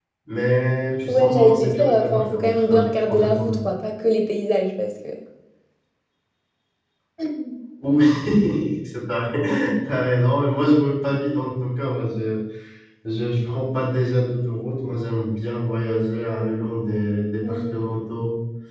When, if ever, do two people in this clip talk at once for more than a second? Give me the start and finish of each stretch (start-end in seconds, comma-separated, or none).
1.1-3.6